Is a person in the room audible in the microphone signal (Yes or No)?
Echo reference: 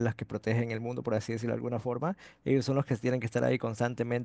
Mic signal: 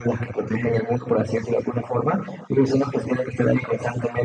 No